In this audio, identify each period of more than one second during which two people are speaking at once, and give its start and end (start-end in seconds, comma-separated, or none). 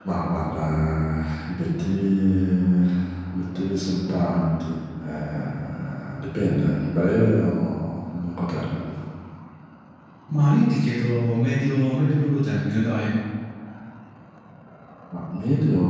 none